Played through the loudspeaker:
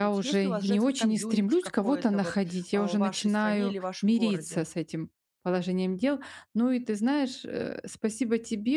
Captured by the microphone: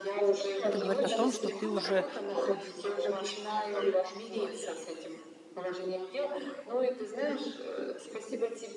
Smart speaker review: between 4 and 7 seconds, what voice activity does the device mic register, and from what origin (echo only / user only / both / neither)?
echo only